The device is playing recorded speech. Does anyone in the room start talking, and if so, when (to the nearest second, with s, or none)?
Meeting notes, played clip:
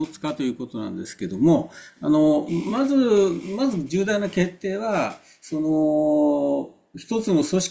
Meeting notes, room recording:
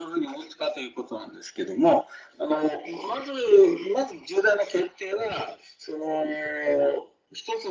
none